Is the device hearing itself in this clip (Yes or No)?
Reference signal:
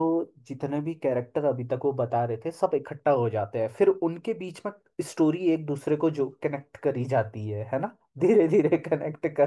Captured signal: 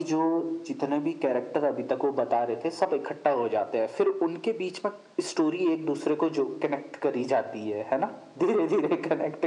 Yes